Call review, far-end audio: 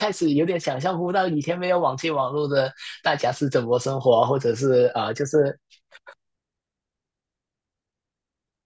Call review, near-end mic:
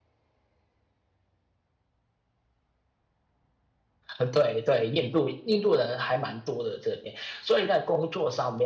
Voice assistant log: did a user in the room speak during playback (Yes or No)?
Yes